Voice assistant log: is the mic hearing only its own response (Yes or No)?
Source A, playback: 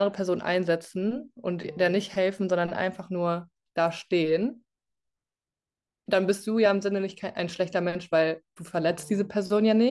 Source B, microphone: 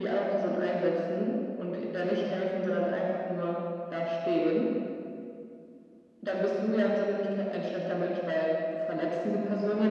Yes